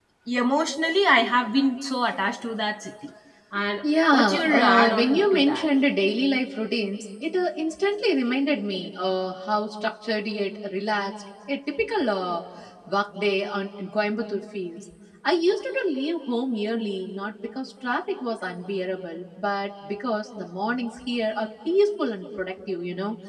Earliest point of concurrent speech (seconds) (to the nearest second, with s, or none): 4 s